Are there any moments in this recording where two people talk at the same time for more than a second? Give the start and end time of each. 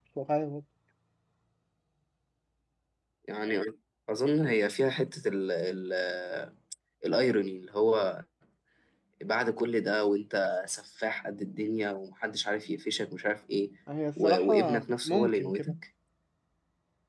14.2-15.8

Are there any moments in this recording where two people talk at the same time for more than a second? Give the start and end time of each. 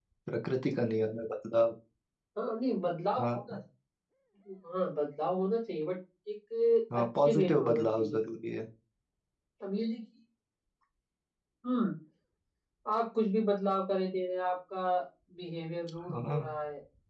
7.0-8.2

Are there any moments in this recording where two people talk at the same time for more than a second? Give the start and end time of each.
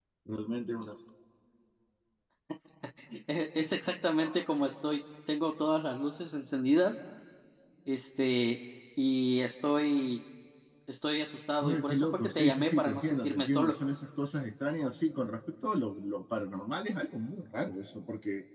11.6-13.8

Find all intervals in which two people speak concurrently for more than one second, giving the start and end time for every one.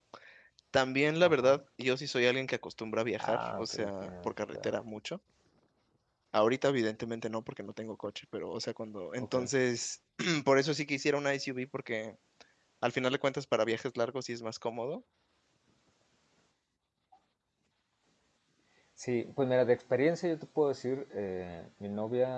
3.2-4.7

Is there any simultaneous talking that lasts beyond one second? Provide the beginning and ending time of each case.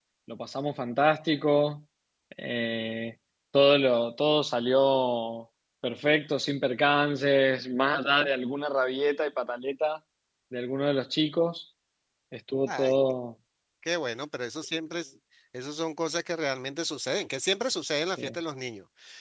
none

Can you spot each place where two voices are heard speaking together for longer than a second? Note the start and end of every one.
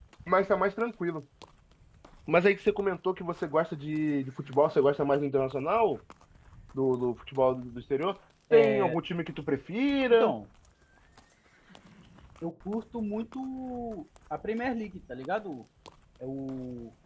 none

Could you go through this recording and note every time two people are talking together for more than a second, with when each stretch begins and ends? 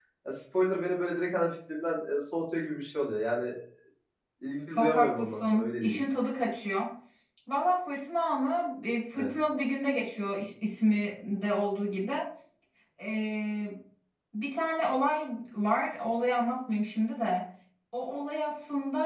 4.7-6.0

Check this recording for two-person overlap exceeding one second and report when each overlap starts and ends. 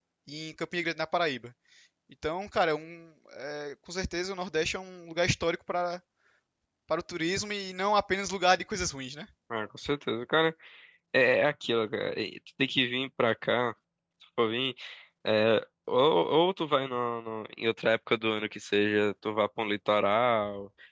none

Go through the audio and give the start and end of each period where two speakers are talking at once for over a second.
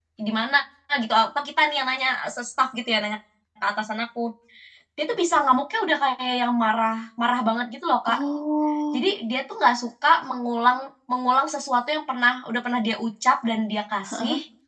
none

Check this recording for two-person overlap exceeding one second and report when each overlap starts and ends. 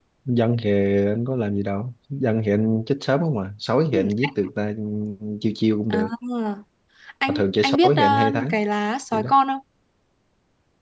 7.3-8.6

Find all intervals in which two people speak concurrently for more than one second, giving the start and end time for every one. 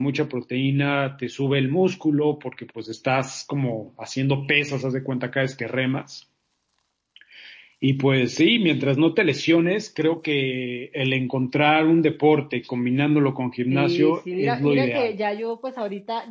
13.7-15.1

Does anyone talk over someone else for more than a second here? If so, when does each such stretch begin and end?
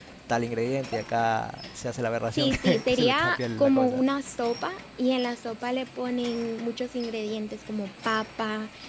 2.3-4.0

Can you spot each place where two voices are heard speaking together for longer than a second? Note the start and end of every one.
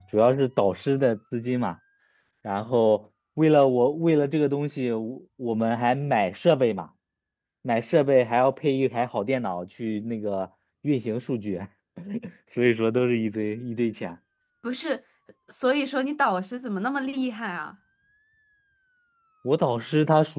none

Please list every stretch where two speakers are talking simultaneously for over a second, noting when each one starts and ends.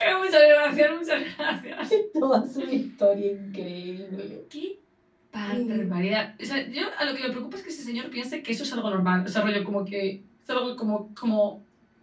none

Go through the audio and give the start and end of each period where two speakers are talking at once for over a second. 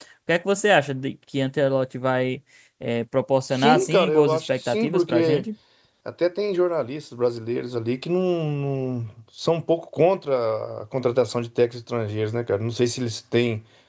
3.5-5.5

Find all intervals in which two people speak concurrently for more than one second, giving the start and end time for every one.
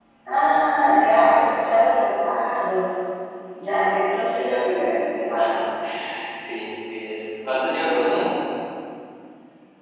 none

